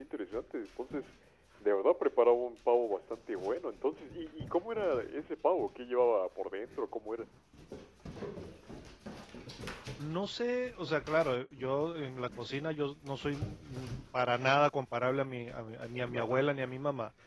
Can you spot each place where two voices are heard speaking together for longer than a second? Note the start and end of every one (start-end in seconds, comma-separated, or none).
none